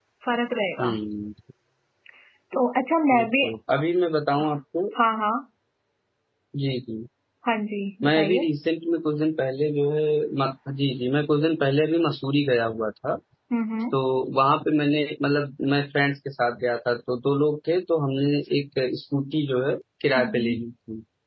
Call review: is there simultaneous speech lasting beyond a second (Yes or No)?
No